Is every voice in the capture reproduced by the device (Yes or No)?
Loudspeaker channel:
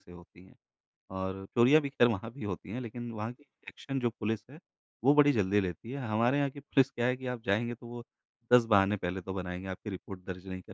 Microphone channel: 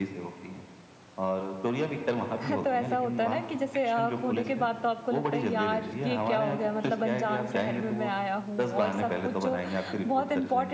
No